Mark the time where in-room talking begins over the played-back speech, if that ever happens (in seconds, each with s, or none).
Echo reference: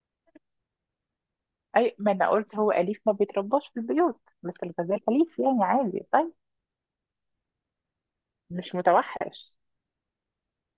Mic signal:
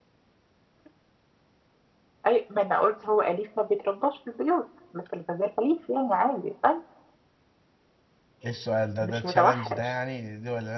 8.4 s